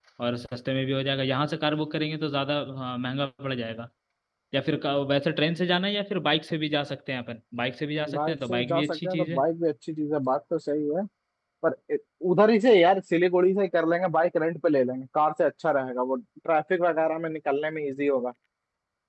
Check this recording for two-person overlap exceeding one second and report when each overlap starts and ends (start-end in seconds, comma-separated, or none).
8.1-9.4